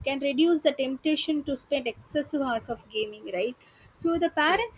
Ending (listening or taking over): listening